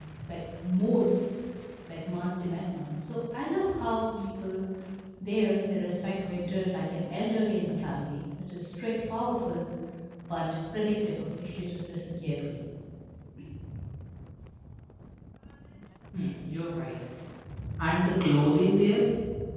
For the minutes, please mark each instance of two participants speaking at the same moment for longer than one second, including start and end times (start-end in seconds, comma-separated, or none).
none